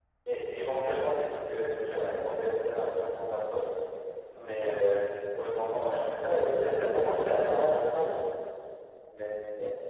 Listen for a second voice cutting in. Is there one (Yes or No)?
Yes